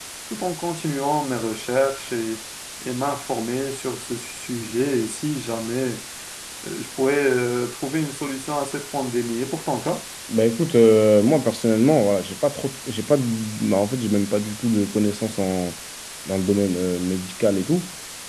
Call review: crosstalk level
none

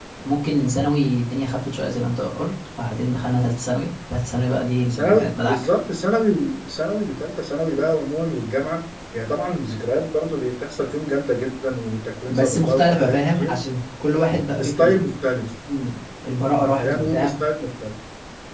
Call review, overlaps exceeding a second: present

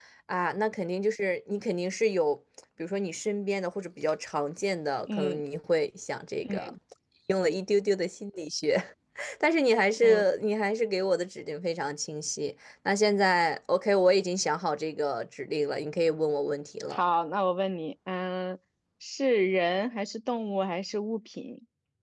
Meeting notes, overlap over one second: none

